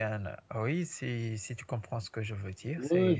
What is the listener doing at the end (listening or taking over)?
taking over